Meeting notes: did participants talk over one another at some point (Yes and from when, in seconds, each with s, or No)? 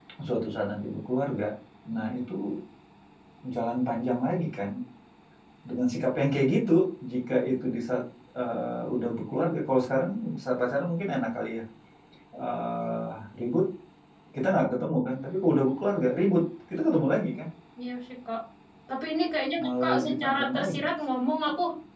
Yes, from 19.6 s